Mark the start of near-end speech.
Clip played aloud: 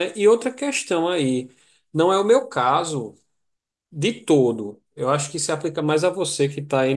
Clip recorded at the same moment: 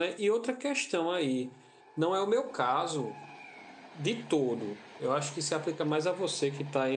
none

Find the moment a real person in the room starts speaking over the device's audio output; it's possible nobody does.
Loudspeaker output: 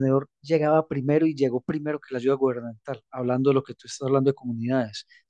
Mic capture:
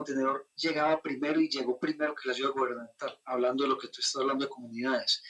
none

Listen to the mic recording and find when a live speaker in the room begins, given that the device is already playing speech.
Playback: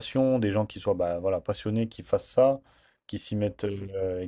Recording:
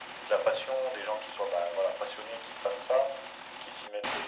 none

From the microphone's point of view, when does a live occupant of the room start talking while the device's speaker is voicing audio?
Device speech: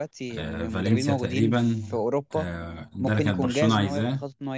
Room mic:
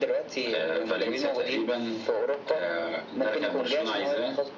none

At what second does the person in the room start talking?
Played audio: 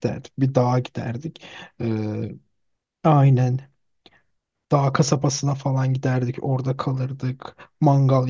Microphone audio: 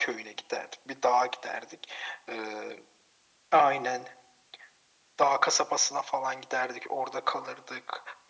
none

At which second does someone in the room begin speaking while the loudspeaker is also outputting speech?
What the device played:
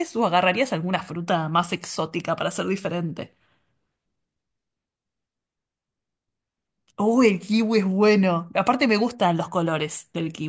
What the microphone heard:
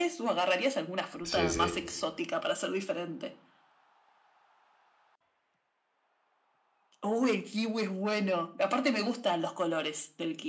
1.2 s

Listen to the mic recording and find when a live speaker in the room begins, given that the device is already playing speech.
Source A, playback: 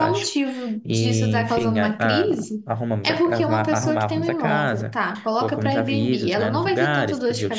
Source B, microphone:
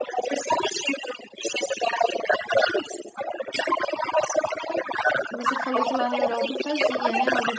5.3 s

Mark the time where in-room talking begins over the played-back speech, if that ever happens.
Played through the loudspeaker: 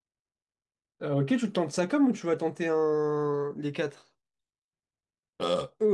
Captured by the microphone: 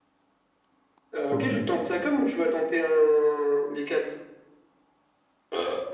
1.3 s

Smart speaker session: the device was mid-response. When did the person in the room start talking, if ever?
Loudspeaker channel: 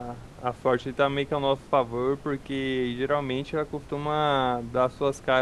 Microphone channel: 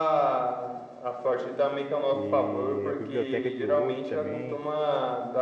2.1 s

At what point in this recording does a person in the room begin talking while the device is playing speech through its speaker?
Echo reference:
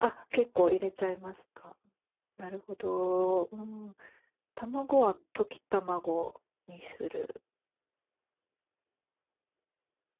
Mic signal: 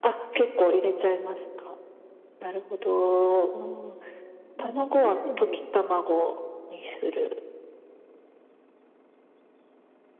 4.5 s

